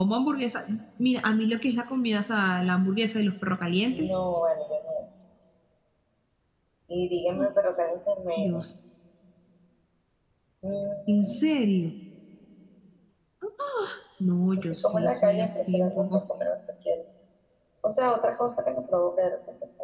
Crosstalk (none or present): present